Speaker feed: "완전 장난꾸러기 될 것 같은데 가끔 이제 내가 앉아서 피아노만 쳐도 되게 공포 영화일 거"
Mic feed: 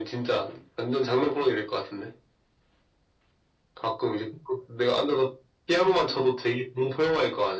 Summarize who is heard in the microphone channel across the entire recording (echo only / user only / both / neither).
echo only